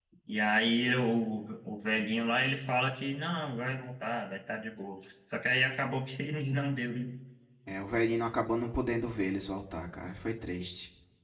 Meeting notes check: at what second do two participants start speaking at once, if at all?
none

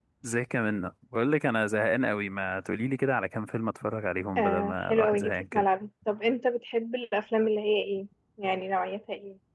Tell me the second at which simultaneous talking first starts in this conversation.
4.4 s

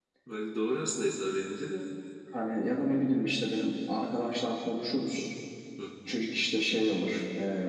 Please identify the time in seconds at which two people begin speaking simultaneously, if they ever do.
none

